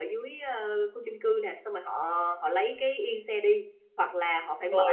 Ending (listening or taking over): listening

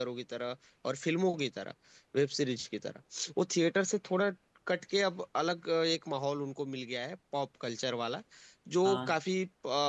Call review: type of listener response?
listening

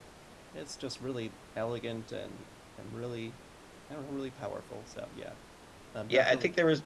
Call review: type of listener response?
taking over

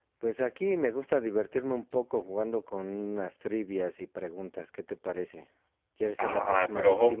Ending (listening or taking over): taking over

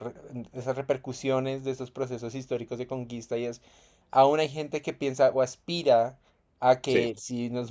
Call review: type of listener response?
listening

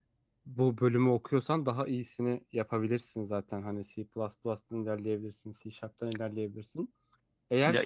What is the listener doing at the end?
taking over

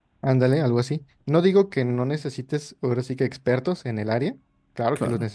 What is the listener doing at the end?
listening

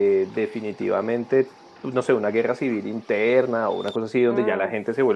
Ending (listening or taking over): listening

